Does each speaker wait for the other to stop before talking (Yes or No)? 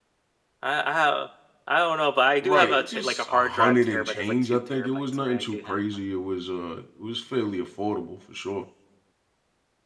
No